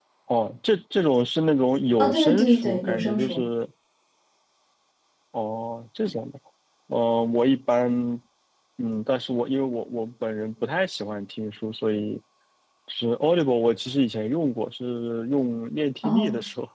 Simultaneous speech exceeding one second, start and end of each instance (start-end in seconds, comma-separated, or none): 2.0-3.4